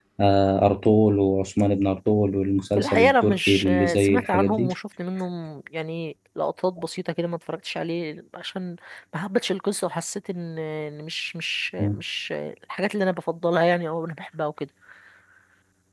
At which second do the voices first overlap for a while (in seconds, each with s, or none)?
2.8 s